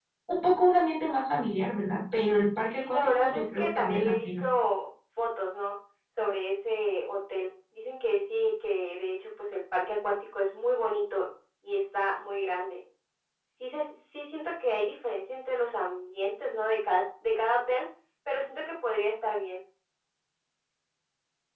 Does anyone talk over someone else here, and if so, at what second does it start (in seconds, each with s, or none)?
2.7 s